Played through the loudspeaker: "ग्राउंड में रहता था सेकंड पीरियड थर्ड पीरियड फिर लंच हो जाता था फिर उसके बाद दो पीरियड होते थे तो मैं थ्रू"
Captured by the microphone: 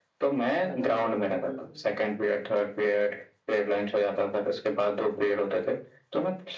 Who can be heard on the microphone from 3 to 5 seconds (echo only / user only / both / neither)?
echo only